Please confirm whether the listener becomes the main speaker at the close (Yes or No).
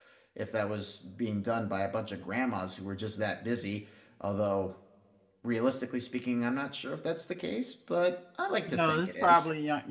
Yes